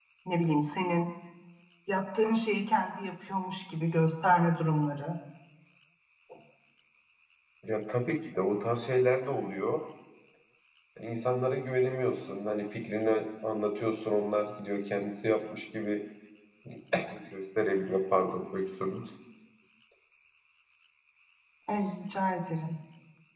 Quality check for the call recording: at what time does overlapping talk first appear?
none

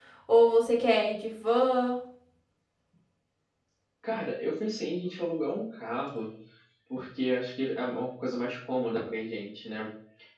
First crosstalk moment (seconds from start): none

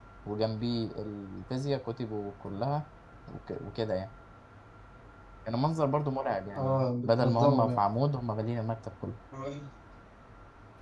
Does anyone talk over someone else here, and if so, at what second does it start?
7 s

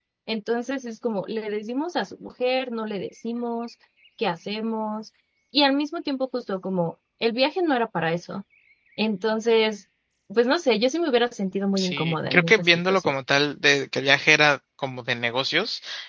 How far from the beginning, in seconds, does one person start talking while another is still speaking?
12 s

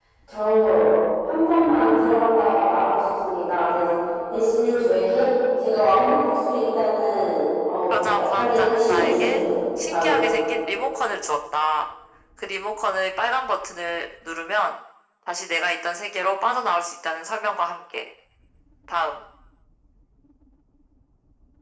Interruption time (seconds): 8 s

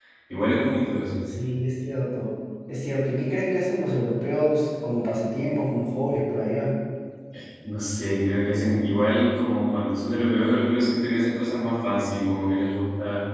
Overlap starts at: none

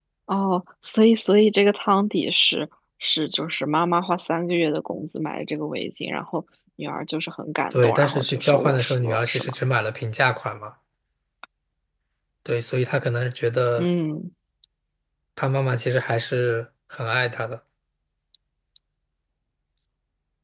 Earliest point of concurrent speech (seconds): 8 s

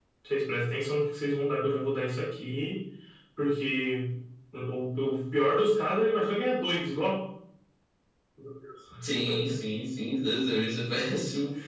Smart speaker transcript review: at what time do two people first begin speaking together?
none

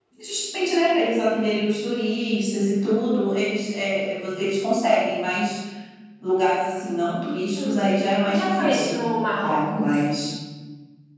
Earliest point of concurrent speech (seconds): 8 s

